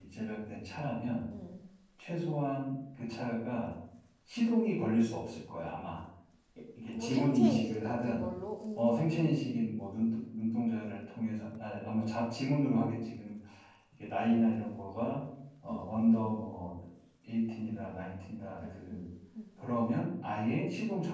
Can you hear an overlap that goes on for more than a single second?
Yes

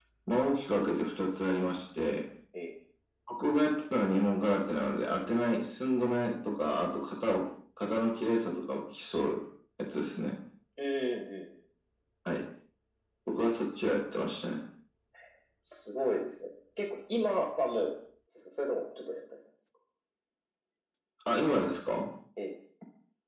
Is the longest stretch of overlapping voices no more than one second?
Yes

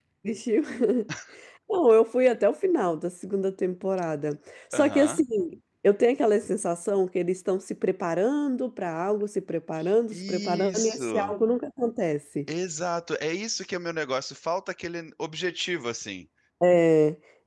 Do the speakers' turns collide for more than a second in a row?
Yes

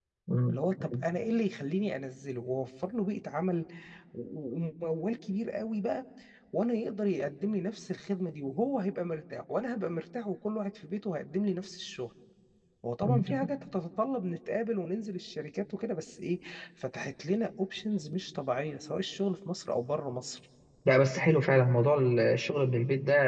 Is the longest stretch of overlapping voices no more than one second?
Yes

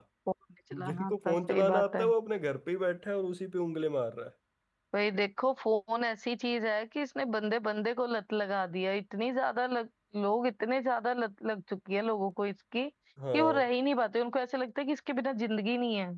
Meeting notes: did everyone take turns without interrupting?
No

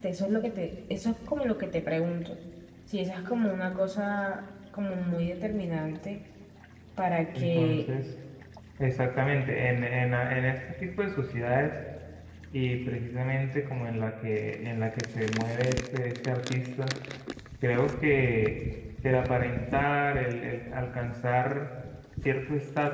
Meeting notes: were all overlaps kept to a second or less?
Yes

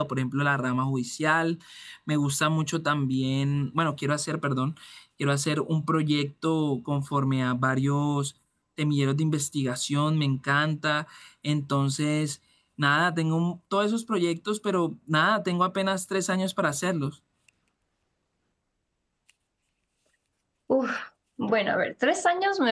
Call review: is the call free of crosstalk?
Yes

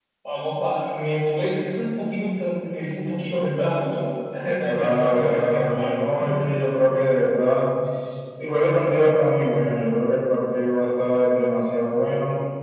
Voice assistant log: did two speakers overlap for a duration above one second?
Yes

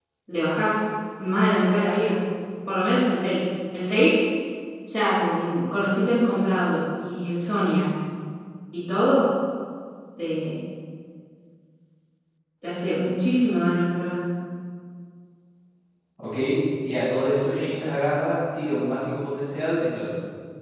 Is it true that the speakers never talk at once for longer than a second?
Yes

